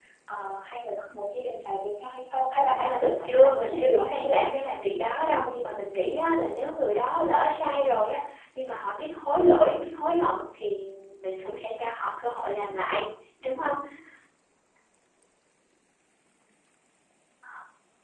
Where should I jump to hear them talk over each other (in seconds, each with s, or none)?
2.7 s